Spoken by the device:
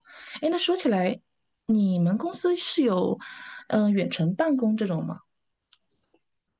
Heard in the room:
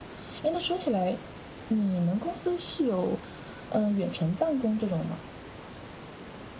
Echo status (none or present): present